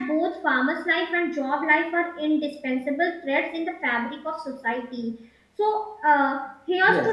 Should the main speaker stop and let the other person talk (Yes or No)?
No